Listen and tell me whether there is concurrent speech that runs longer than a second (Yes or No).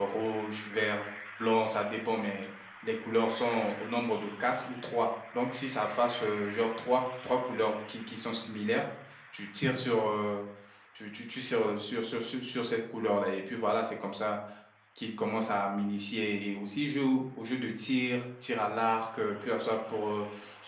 No